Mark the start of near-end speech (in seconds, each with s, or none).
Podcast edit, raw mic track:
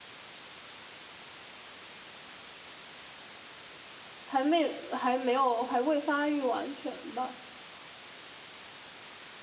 4.2 s